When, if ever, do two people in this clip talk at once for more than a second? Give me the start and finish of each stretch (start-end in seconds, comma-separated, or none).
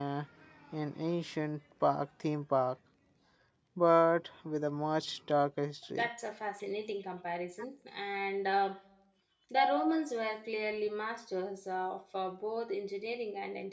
none